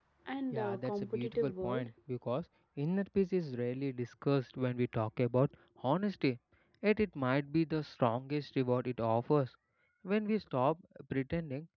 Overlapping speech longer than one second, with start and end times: 0.5-1.9

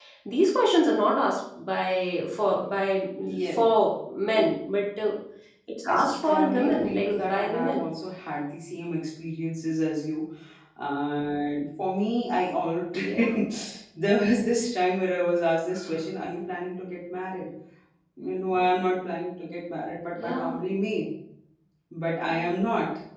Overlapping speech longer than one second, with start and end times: 5.9-7.9

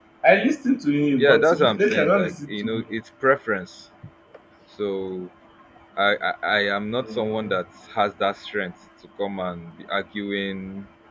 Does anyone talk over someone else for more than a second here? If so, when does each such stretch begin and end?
1.2-2.8

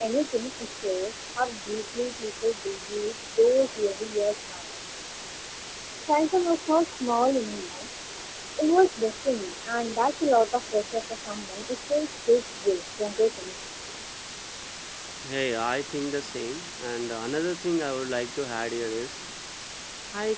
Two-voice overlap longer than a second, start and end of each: none

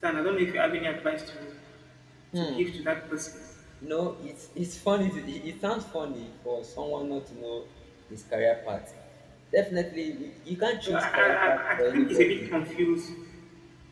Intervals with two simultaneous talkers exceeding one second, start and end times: 10.8-12.3

